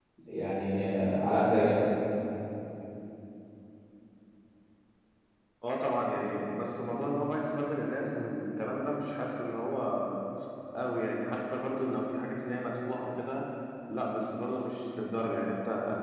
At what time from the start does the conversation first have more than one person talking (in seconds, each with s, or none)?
none